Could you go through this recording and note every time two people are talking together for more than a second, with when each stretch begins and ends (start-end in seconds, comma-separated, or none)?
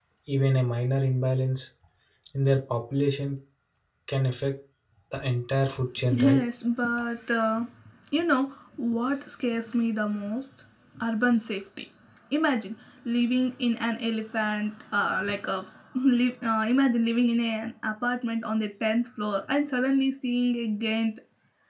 none